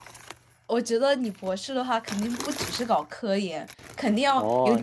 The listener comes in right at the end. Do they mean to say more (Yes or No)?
Yes